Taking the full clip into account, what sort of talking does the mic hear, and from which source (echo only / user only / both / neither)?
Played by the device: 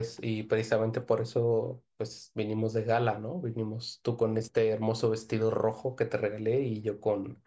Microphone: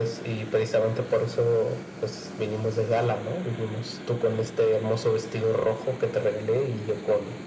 echo only